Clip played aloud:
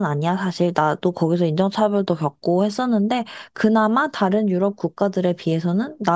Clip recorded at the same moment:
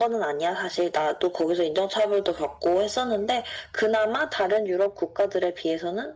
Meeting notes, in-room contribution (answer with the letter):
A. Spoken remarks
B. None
B